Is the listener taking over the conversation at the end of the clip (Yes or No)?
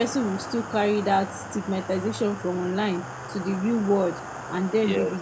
No